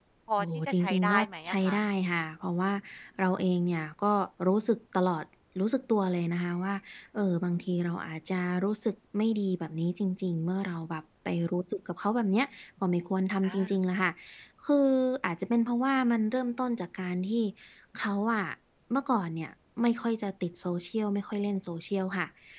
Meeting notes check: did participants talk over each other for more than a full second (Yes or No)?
Yes